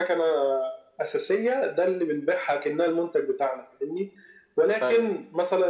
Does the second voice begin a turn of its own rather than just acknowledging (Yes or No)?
No